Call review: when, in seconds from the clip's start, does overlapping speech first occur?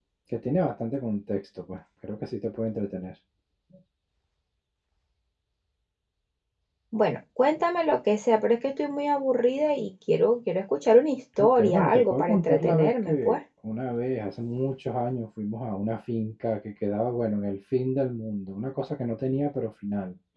11 s

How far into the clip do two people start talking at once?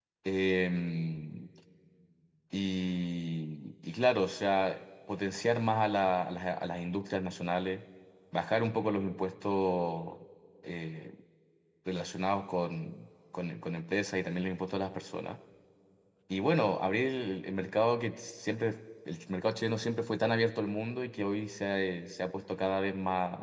none

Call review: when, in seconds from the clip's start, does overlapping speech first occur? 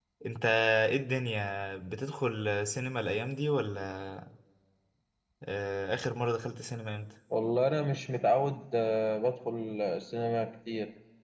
none

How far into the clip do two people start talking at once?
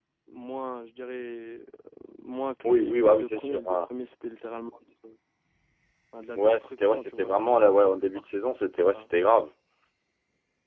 3 s

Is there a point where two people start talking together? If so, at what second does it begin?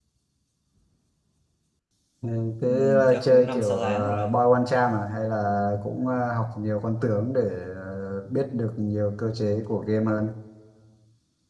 3 s

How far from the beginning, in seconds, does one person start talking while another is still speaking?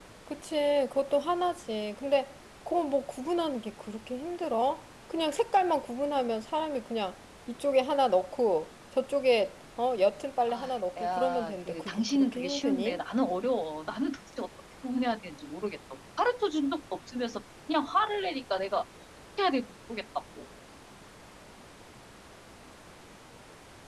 10 s

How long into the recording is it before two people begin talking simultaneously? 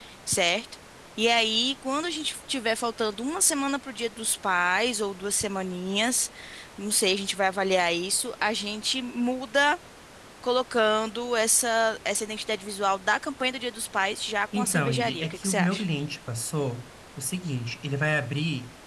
15 s

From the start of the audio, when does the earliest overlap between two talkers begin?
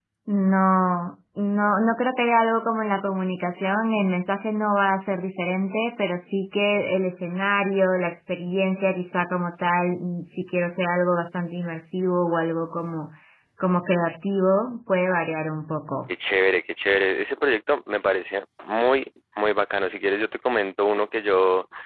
none

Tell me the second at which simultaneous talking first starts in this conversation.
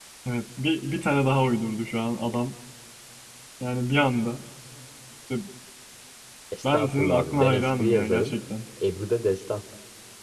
7 s

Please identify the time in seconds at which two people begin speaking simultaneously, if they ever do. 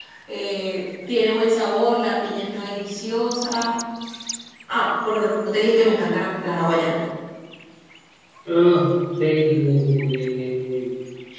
none

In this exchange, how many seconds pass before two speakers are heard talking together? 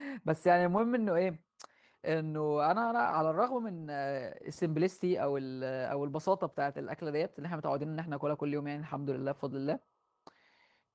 none

